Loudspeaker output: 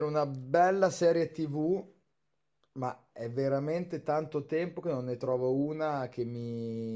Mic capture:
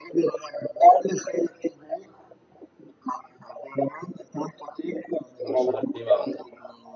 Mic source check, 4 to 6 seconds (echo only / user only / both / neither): both